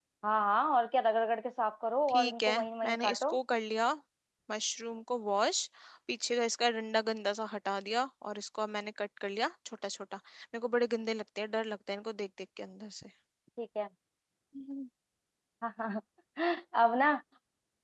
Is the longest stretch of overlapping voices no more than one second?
No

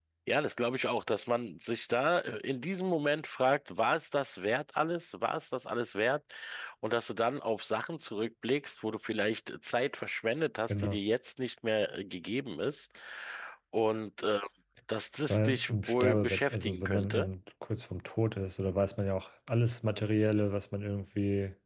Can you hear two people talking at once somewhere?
Yes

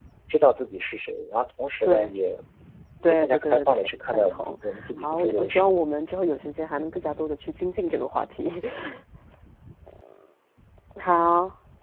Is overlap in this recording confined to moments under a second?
No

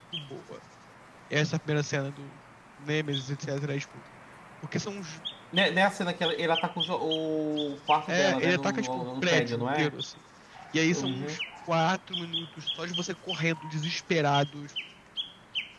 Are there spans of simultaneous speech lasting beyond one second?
Yes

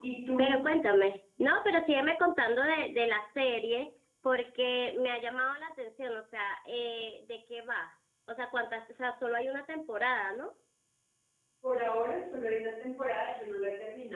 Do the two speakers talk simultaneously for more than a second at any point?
No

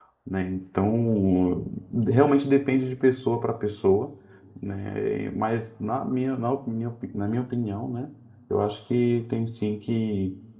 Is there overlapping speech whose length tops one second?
No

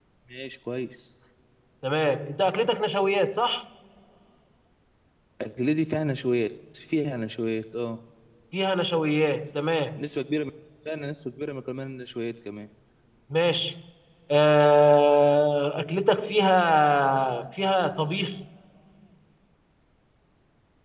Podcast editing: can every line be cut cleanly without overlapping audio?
Yes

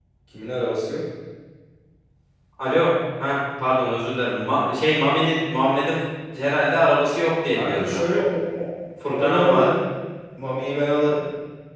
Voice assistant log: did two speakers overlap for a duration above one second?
No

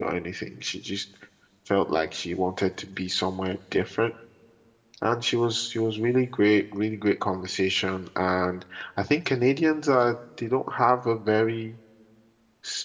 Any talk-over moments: No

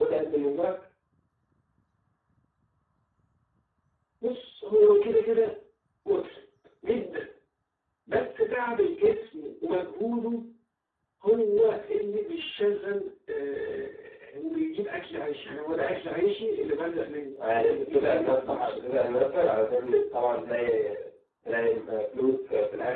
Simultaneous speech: Yes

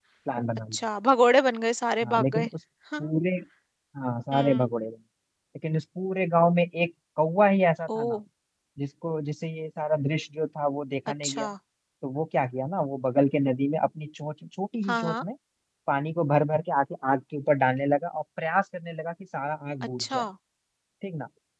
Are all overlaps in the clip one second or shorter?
Yes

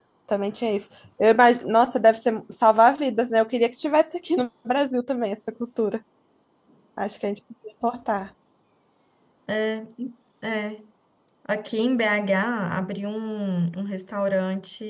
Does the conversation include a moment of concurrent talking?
No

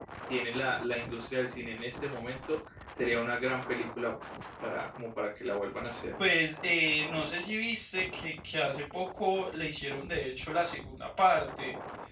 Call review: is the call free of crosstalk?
Yes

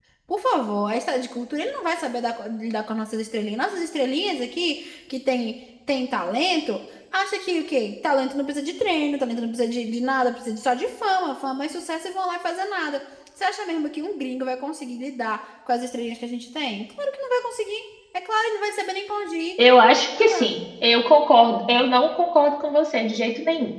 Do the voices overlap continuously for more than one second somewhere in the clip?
No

